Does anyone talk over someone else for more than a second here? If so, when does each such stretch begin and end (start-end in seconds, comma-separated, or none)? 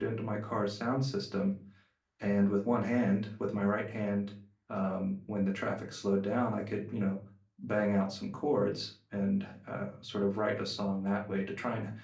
none